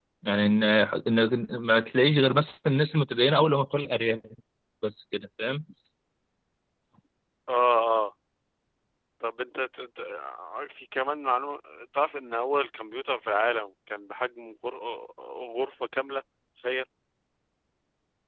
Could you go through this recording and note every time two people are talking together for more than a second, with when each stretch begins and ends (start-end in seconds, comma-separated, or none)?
none